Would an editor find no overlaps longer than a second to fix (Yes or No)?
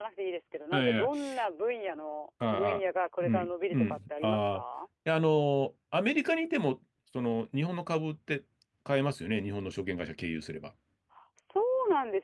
No